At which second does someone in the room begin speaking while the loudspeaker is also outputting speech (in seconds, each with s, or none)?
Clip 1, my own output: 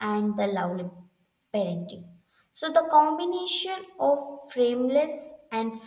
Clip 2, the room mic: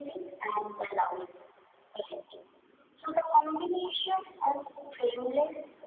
none